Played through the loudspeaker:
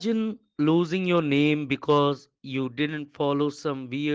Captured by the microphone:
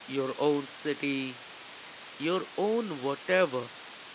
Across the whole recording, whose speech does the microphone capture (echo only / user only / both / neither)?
user only